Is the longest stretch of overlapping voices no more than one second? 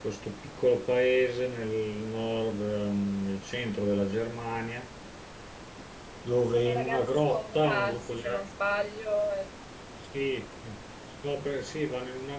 No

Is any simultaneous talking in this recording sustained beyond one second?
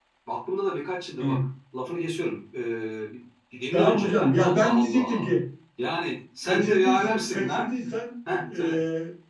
Yes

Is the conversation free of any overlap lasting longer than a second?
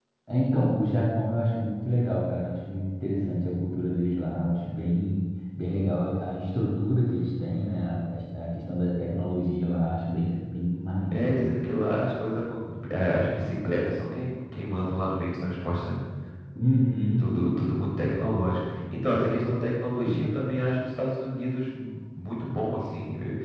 Yes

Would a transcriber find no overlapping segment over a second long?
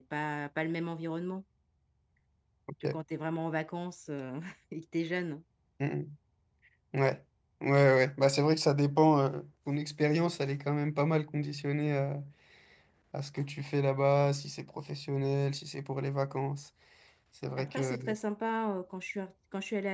Yes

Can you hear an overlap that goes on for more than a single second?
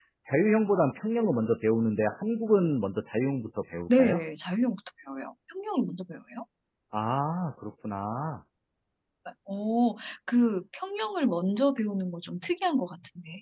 No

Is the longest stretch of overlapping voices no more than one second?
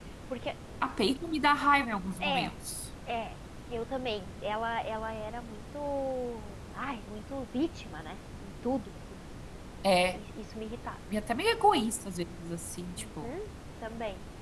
Yes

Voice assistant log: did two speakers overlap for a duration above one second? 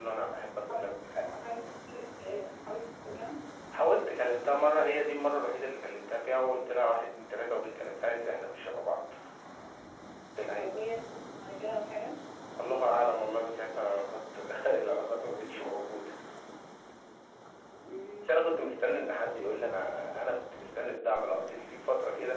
No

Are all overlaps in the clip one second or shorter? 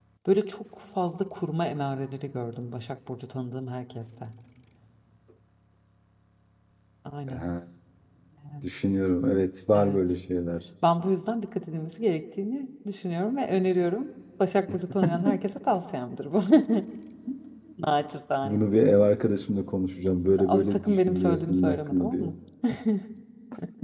No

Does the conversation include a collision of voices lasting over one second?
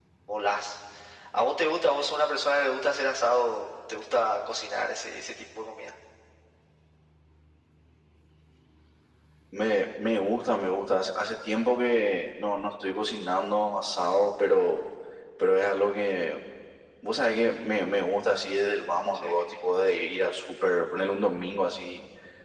No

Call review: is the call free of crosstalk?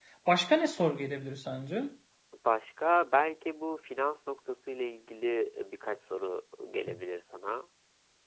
Yes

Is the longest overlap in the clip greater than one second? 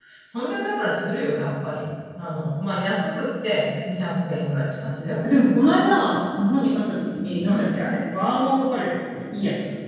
No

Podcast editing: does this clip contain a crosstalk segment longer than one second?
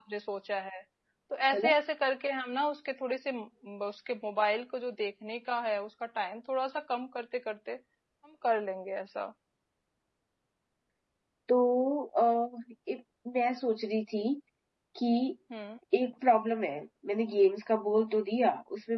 No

